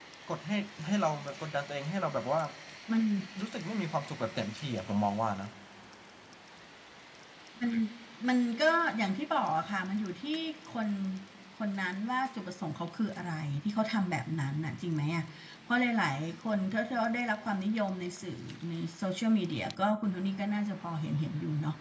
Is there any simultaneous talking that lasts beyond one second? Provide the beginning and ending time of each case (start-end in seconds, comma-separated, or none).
none